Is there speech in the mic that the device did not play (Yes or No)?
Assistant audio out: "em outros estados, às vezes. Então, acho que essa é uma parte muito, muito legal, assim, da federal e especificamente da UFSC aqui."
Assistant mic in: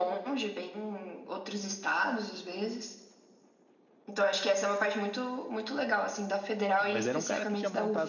Yes